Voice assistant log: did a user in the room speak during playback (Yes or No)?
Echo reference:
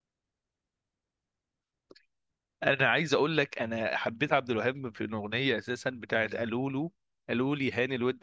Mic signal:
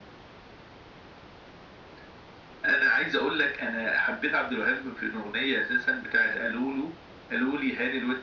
No